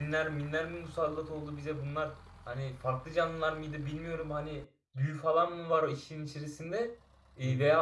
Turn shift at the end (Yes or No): No